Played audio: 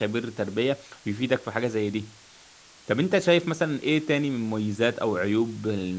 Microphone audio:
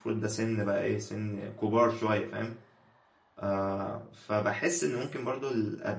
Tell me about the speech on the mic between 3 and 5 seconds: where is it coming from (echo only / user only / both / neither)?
user only